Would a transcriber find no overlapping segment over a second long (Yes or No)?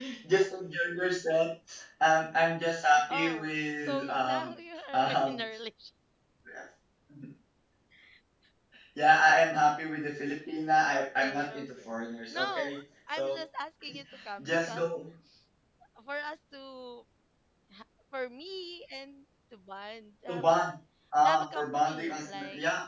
No